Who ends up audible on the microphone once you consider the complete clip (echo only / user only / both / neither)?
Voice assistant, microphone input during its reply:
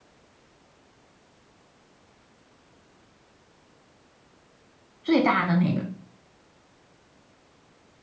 user only